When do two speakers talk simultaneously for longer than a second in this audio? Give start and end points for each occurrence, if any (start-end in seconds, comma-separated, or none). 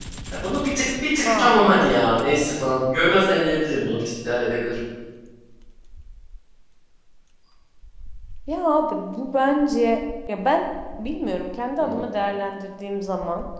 none